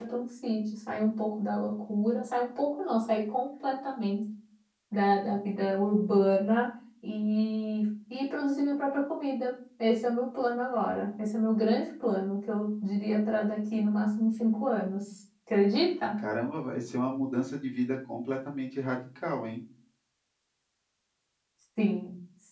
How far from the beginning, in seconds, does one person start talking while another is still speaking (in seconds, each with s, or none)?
none